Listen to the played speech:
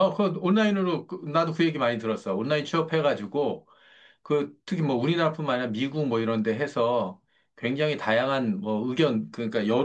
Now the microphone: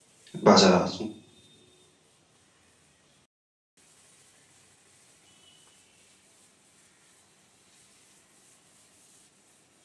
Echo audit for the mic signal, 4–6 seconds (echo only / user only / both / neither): neither